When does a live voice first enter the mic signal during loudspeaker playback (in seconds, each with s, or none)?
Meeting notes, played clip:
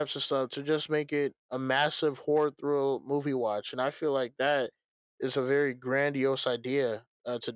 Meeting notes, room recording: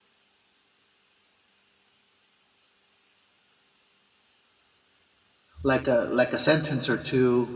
5.6 s